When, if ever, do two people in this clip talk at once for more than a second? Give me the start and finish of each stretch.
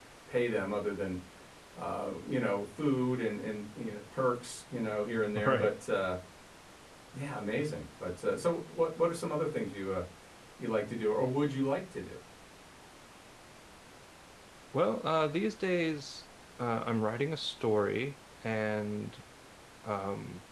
none

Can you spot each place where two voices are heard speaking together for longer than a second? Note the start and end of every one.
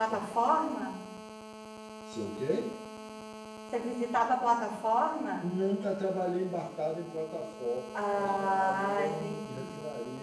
8.2-9.7

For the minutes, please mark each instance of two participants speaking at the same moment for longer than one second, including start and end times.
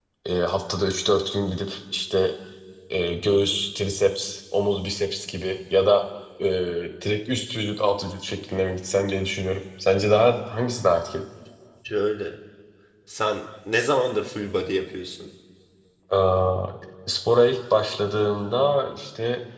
none

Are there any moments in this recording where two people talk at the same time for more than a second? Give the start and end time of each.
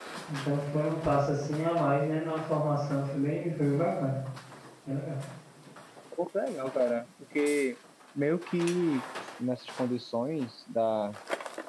none

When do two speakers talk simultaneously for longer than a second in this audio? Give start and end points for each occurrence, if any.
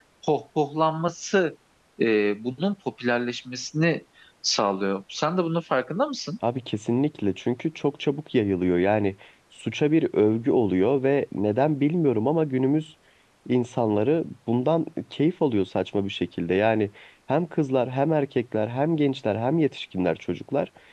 none

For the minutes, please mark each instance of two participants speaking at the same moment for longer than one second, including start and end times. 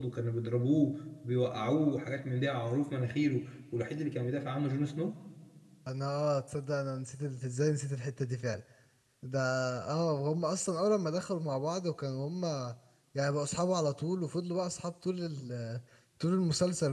none

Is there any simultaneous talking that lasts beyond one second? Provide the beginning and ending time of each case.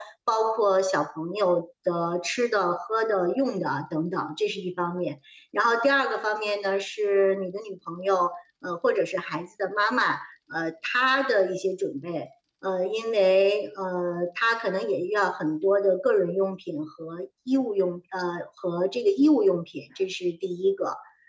none

